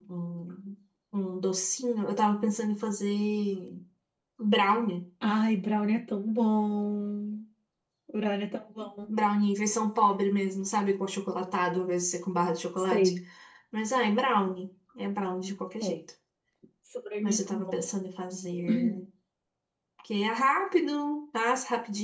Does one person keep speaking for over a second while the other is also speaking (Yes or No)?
No